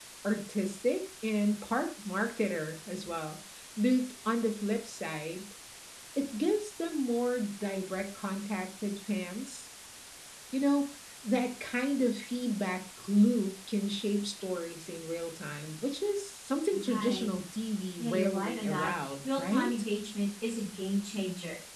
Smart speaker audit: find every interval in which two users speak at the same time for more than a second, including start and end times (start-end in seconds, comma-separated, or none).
18.0-19.7